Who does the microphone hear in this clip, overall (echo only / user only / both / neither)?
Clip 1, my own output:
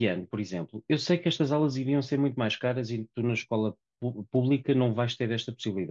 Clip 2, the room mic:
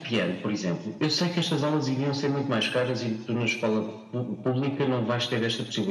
echo only